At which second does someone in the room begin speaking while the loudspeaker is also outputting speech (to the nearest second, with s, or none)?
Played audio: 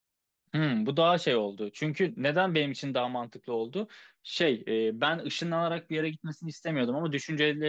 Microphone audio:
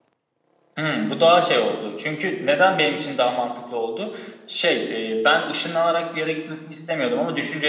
none